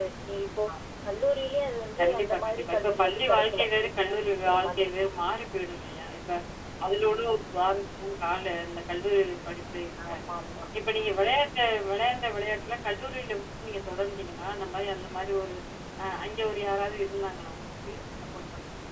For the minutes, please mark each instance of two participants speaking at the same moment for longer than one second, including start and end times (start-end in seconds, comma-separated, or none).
2.0-4.9